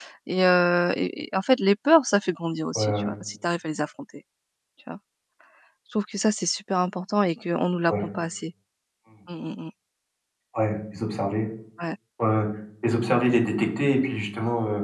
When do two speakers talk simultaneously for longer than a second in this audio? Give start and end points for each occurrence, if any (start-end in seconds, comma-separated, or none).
none